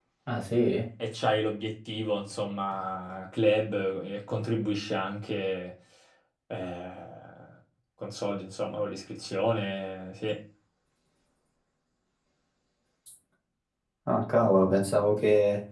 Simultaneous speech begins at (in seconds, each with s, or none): none